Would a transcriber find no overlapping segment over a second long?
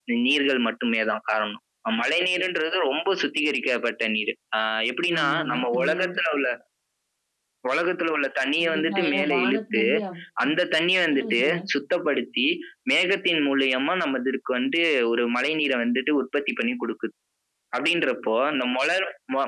No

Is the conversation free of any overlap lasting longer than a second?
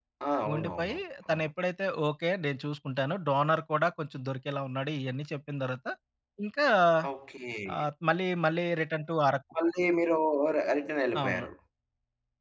Yes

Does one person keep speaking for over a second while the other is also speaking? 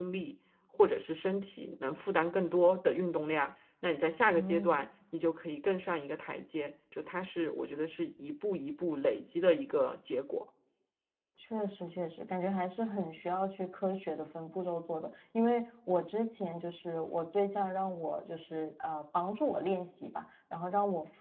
No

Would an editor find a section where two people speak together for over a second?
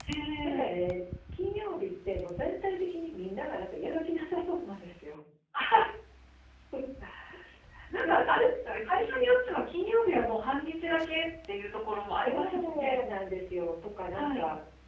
Yes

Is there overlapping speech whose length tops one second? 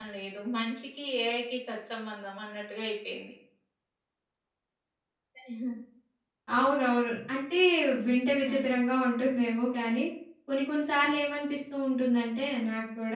No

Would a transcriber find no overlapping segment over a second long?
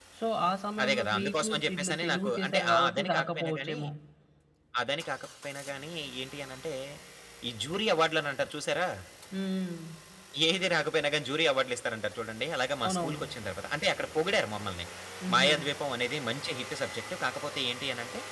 No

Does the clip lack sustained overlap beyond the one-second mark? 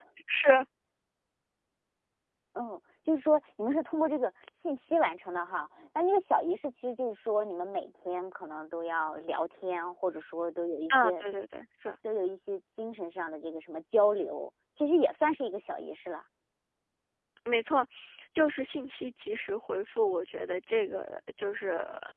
Yes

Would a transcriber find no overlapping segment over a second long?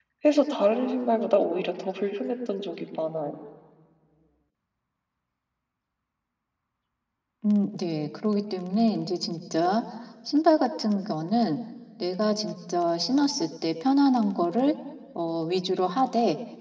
Yes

